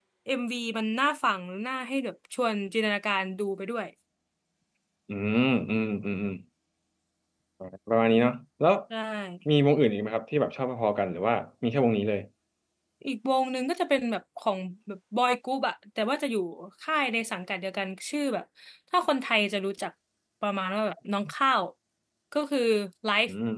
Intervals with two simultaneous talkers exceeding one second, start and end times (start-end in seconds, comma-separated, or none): none